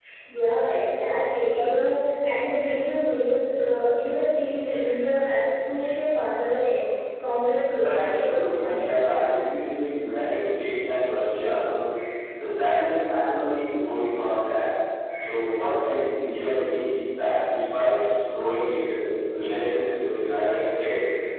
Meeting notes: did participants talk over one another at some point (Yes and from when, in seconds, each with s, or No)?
Yes, from 7.8 s